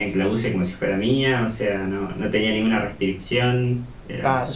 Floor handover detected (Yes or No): Yes